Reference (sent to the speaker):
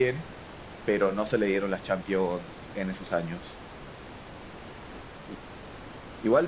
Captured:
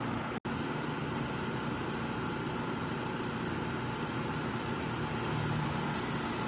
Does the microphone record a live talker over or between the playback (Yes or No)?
No